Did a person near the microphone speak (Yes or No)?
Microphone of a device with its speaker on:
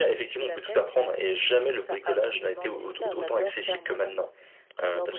No